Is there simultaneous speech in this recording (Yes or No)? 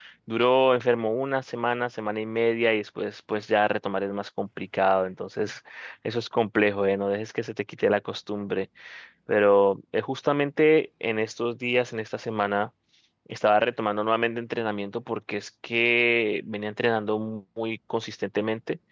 No